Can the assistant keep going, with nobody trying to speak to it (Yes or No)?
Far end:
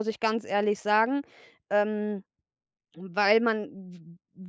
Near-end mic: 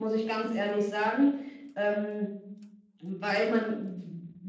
Yes